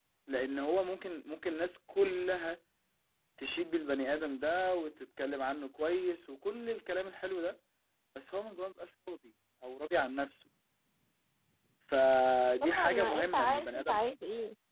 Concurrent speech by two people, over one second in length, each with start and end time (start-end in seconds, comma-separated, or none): 12.6-14.0